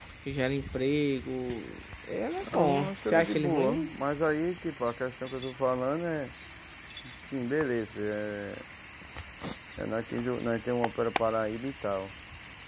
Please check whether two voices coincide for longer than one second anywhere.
Yes, from 2.4 s

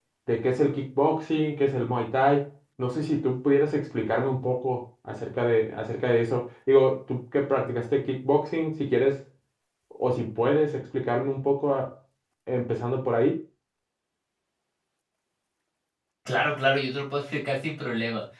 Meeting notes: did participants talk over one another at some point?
No

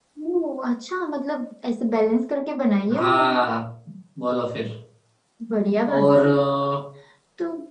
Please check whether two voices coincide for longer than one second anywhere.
No

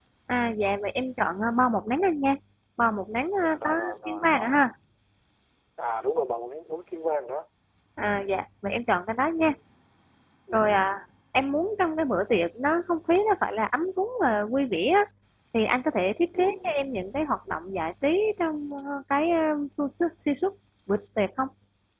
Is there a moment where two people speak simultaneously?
Yes, from 3.4 s

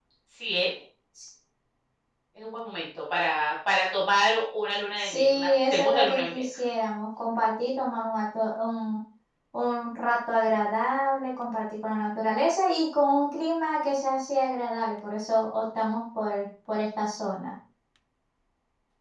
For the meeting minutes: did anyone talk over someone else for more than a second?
Yes, from 5.0 s

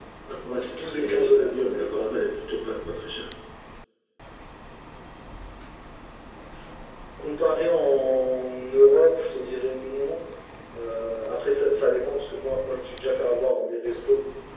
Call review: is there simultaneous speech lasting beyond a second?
Yes, from 0.5 s

